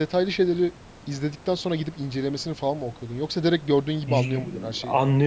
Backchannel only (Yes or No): No